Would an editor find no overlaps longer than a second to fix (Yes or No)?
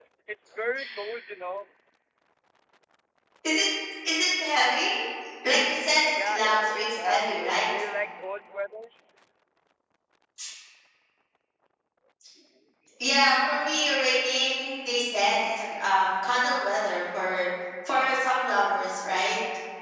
No